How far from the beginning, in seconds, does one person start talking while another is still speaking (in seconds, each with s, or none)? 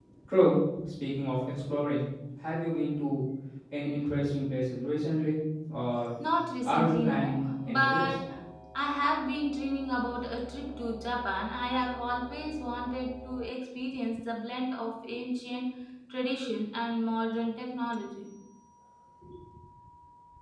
6.7 s